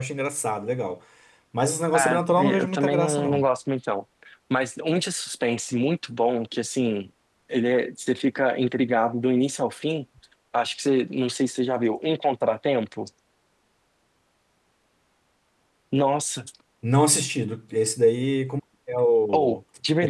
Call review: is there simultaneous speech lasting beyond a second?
Yes, from 1.9 s

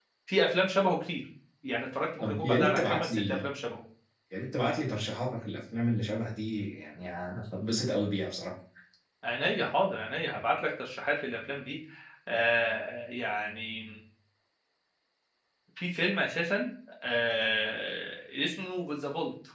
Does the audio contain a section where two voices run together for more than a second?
Yes, from 2.2 s

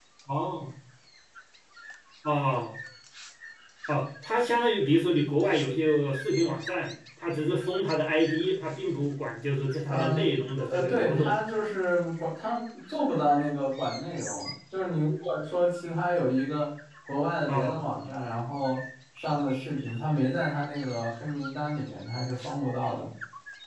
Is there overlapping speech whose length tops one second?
Yes, from 9.9 s

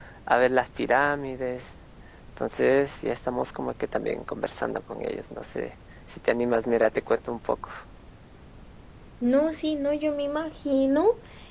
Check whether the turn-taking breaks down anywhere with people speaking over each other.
No

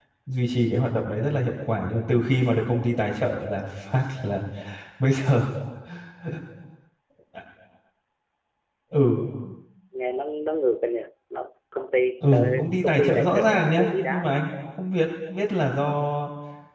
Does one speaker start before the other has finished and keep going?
Yes, from 12.2 s

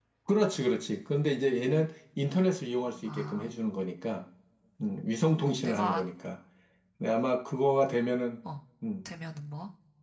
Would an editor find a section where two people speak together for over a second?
No

